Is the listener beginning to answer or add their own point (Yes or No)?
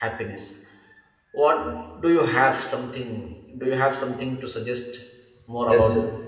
Yes